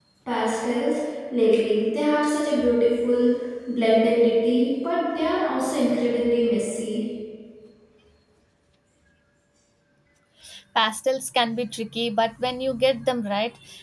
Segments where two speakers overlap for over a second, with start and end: none

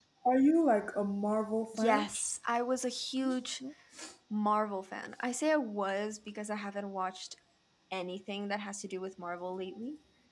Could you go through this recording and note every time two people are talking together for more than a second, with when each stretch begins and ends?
none

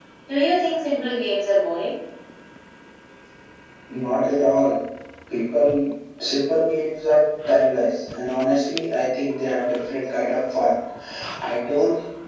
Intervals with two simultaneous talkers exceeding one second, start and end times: none

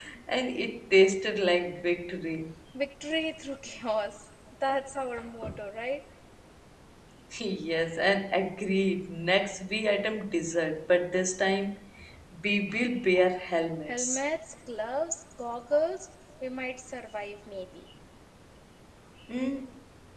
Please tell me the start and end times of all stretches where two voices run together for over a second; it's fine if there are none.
none

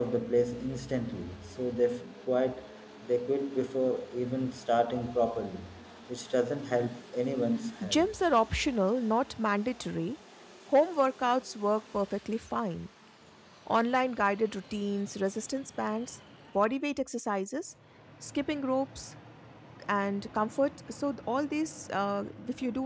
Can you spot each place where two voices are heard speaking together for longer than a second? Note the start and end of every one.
none

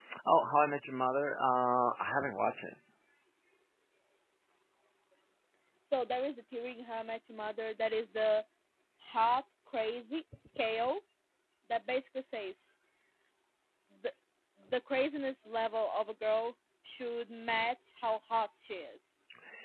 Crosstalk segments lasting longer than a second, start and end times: none

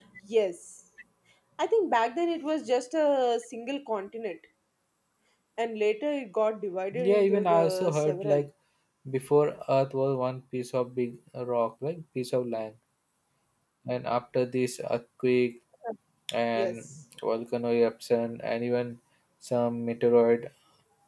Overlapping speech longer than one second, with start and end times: 6.9-8.4

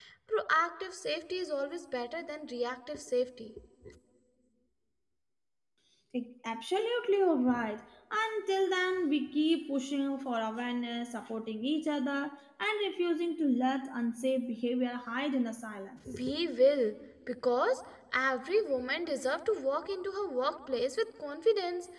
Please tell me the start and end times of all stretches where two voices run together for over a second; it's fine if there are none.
none

